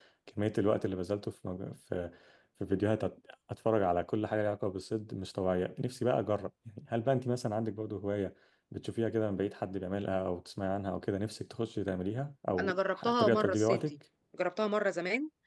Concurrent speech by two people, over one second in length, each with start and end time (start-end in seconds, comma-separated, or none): 12.6-14.0